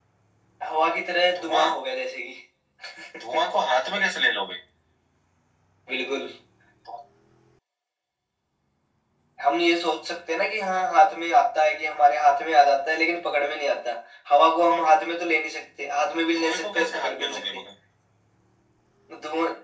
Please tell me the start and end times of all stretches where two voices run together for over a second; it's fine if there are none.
16.3-17.6

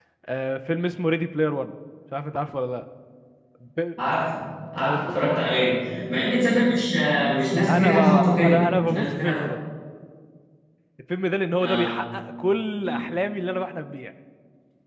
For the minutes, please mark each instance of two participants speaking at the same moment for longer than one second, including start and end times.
7.7-9.5

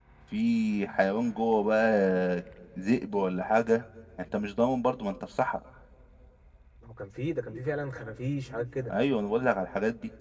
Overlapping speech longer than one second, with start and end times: none

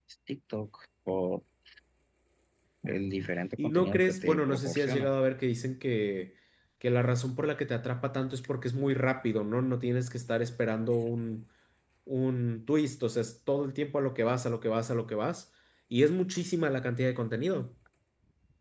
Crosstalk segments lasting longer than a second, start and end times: 3.6-5.1

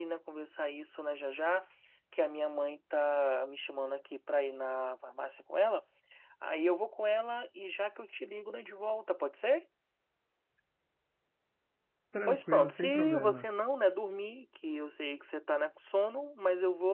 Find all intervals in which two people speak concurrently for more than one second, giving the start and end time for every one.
12.2-13.6

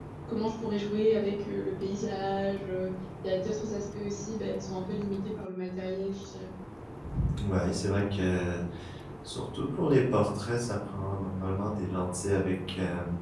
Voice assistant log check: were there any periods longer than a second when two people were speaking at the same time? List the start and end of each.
none

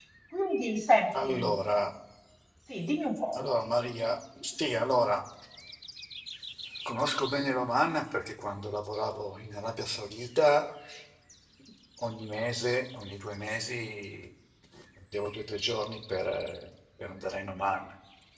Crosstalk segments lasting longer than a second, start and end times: none

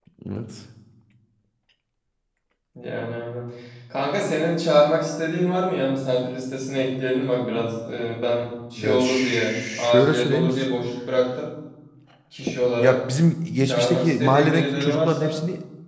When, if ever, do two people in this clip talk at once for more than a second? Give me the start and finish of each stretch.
8.8-10.7, 13.6-15.4

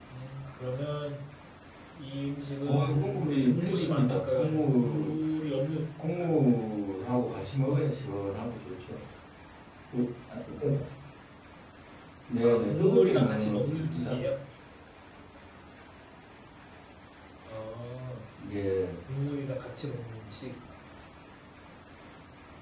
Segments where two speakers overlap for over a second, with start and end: 2.7-5.1, 12.4-14.2

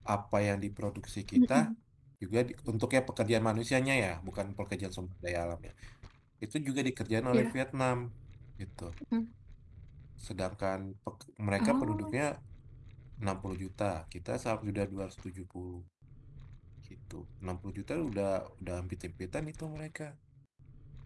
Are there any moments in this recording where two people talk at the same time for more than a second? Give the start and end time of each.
none

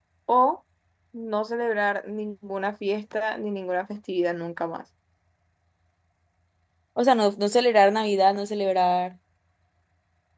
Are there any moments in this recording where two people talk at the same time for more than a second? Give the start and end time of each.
none

